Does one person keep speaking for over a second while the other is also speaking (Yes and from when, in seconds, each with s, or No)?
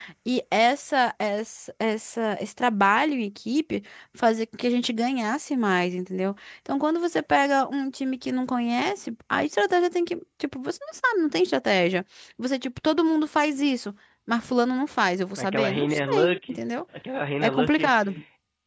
Yes, from 15.4 s